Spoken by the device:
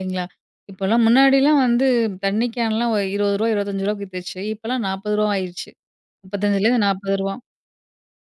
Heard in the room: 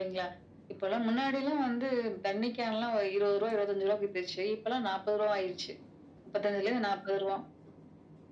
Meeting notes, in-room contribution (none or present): none